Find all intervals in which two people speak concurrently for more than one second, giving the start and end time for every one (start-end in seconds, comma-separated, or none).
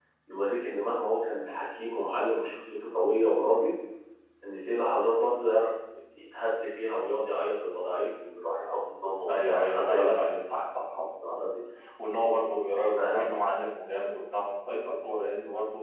9.3-10.6